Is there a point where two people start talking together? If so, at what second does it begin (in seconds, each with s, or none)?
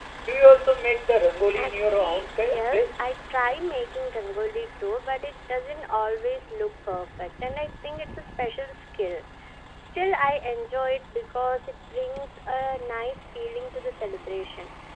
1.5 s